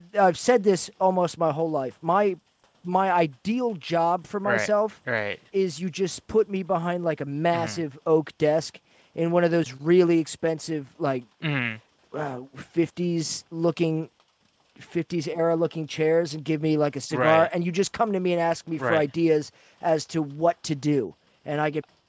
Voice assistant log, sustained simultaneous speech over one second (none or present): none